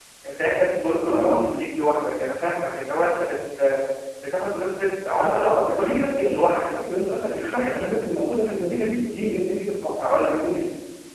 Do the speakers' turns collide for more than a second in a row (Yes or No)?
Yes